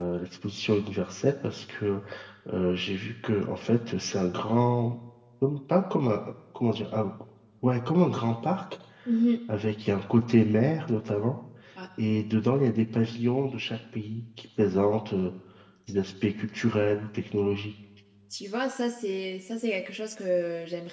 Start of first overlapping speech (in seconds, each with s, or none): none